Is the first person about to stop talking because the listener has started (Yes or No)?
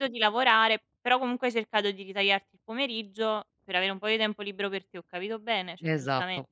Yes